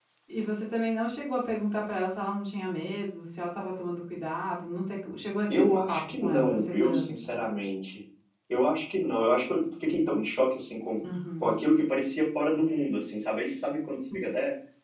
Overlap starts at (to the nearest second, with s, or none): 5 s